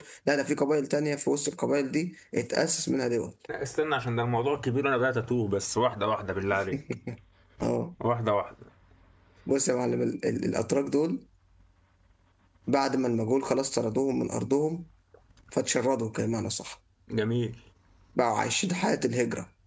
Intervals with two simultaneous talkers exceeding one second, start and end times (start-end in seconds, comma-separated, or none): none